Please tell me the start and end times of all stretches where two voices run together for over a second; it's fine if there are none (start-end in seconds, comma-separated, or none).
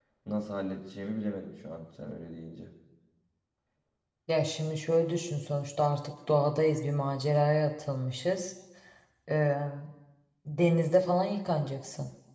none